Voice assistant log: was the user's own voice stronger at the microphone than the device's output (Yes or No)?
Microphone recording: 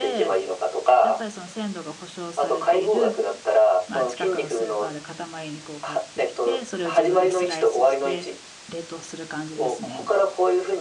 No